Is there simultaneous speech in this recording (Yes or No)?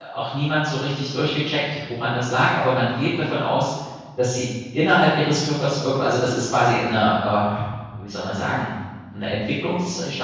No